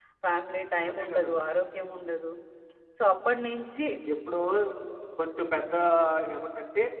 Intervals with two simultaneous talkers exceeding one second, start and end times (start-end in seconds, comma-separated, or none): none